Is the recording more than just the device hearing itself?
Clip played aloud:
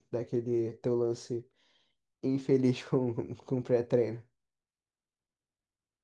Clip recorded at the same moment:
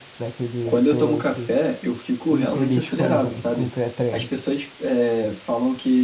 Yes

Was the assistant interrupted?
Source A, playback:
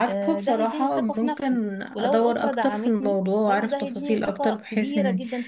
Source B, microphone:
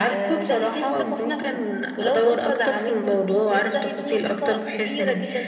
No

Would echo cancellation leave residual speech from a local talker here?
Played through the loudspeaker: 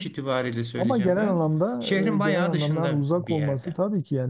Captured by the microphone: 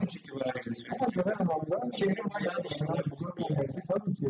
No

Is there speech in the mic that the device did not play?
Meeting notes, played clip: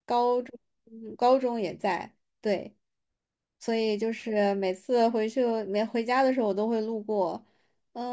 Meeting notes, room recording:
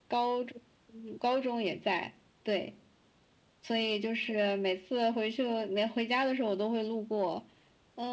No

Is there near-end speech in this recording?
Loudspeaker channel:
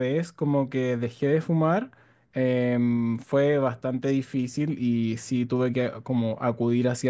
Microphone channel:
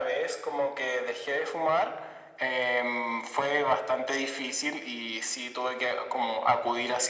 No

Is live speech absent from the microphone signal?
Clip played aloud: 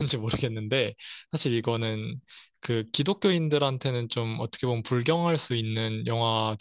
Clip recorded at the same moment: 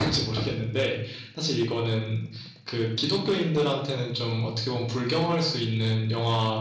Yes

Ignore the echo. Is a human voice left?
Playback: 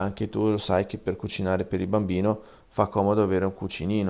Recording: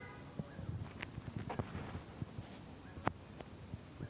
No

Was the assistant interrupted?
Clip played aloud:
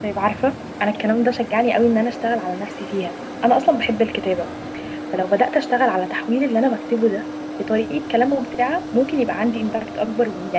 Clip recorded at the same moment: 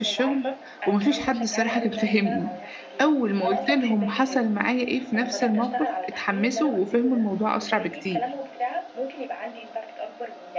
Yes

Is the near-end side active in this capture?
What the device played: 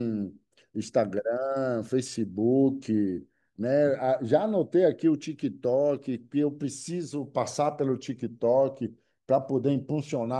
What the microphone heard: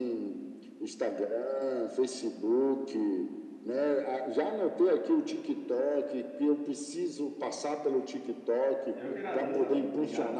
Yes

